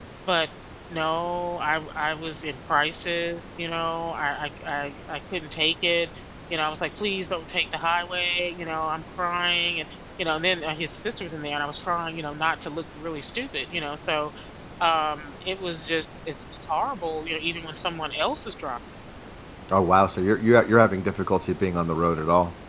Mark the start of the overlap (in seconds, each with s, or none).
none